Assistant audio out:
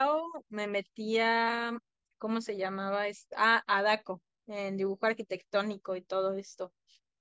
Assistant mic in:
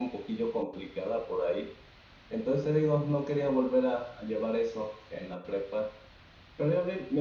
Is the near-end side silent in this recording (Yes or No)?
No